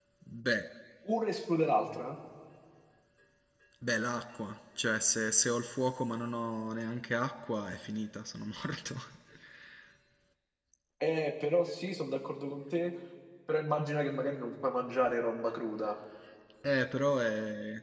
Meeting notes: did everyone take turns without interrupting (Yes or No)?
Yes